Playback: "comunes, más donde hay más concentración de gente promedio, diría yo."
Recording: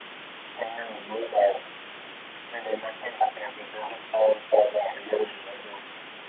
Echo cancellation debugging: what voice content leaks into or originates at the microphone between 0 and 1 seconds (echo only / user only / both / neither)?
echo only